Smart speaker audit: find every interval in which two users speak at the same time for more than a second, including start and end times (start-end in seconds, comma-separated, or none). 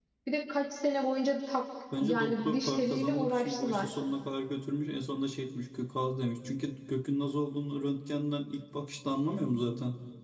2.0-3.9